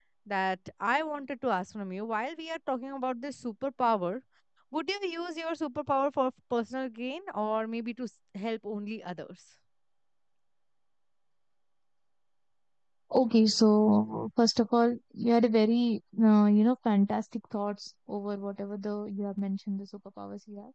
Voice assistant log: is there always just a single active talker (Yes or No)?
Yes